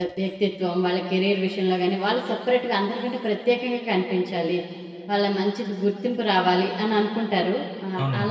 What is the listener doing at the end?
taking over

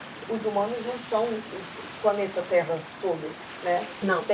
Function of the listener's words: listening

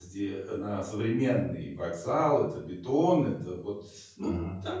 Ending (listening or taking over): listening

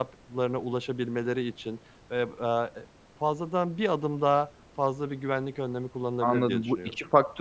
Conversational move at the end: taking over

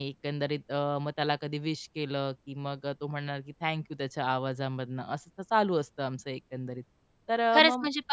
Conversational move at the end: taking over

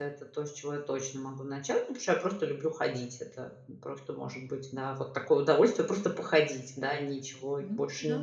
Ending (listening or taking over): taking over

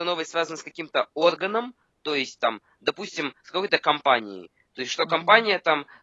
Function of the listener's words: listening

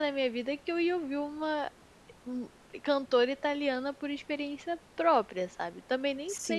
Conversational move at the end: taking over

